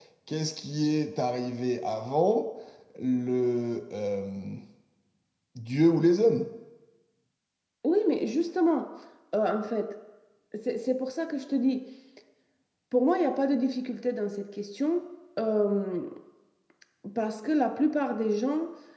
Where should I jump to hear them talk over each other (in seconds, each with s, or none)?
none